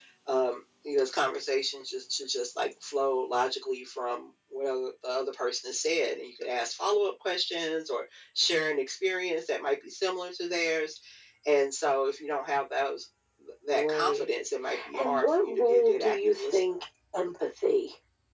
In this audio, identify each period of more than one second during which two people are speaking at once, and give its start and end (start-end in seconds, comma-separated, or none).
14.9-16.6